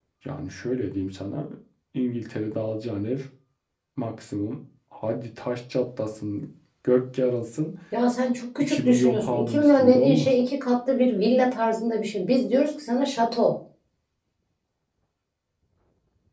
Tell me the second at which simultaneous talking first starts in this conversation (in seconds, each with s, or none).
8.7 s